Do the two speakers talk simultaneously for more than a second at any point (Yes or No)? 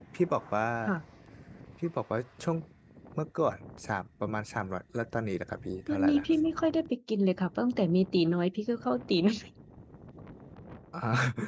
No